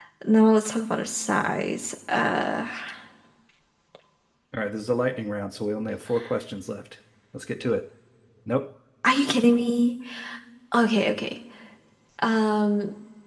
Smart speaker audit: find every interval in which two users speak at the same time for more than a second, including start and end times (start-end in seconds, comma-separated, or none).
none